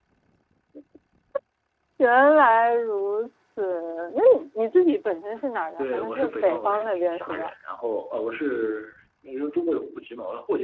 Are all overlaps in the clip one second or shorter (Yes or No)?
No